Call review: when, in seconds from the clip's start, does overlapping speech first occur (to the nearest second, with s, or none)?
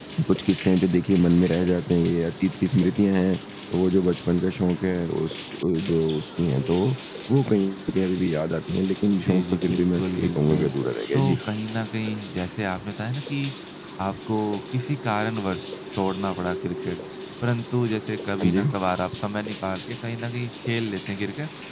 9 s